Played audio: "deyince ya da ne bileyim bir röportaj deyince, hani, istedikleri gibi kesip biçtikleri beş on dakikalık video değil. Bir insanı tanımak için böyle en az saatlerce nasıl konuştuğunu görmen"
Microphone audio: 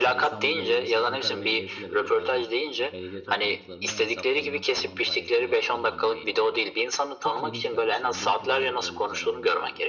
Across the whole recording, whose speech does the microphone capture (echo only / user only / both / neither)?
both